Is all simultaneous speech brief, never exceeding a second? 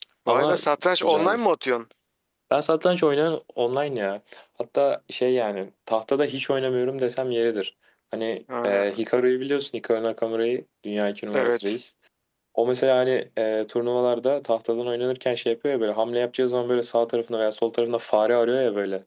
Yes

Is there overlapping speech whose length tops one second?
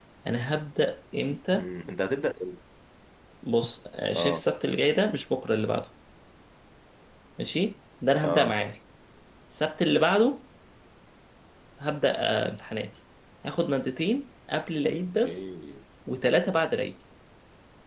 No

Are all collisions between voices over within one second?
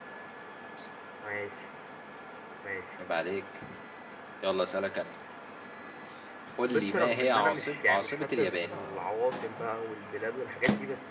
No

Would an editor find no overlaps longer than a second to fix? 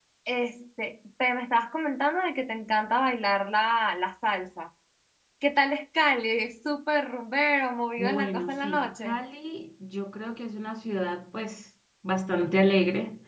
No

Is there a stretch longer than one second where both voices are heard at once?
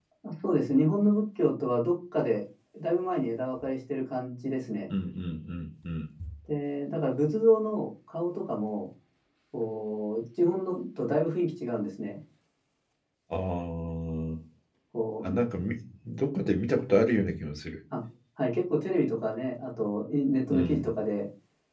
No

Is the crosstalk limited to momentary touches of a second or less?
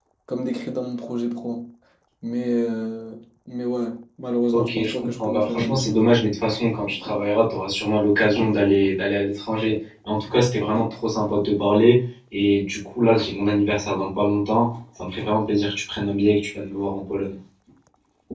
No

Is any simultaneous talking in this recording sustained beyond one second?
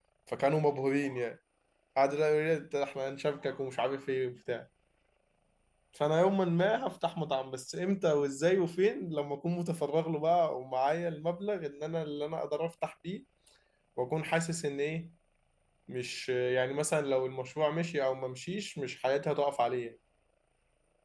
No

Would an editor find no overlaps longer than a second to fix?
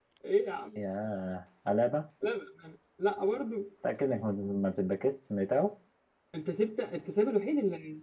Yes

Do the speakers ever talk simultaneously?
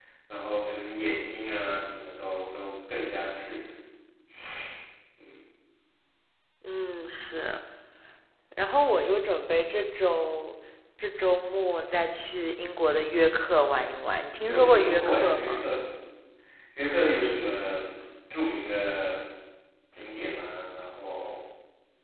Yes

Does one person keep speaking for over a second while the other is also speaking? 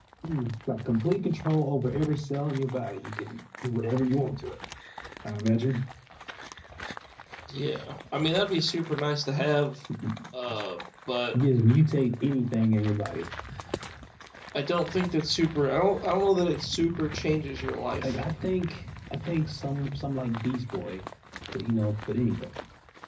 No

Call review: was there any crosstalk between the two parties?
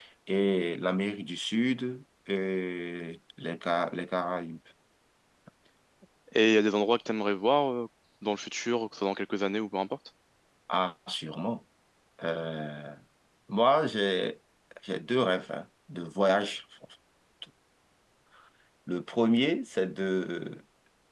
No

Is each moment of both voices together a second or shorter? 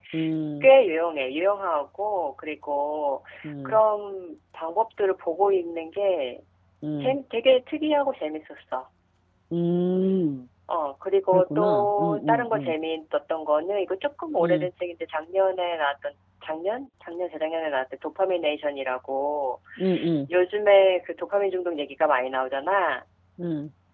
No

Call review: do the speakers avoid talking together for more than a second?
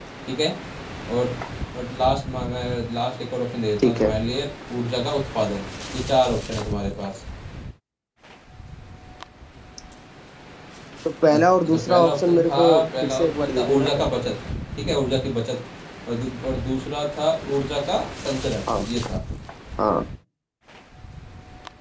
No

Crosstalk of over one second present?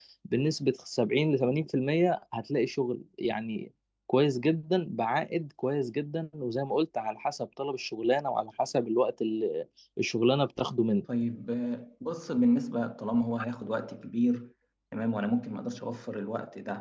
No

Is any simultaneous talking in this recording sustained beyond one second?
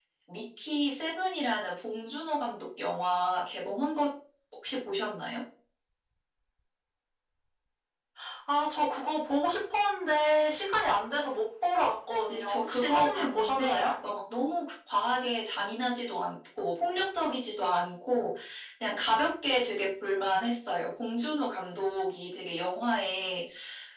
Yes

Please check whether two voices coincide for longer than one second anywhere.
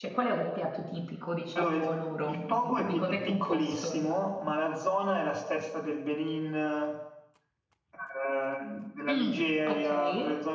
Yes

